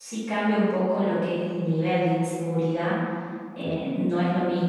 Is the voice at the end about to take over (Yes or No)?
No